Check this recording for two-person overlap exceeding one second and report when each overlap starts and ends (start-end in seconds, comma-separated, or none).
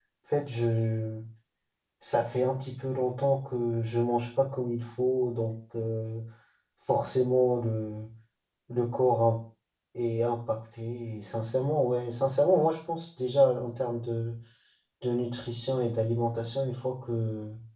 none